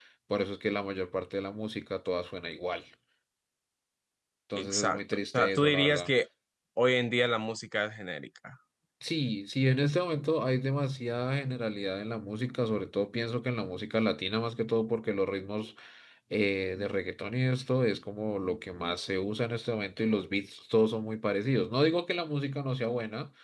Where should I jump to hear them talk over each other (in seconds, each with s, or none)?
4.6 s